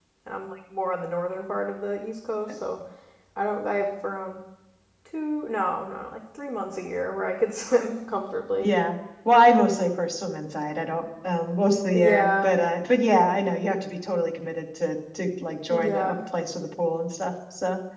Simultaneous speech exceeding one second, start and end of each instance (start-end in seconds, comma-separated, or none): none